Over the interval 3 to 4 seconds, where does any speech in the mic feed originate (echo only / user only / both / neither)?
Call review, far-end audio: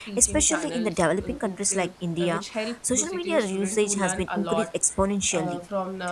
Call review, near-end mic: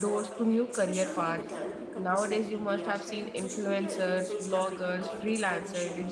both